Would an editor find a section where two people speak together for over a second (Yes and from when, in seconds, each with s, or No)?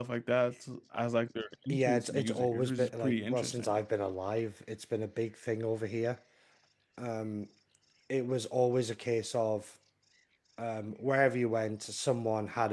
Yes, from 1.7 s